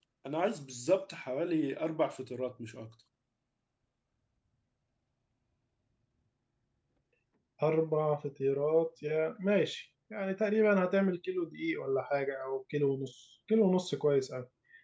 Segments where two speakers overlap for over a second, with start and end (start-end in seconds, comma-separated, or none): none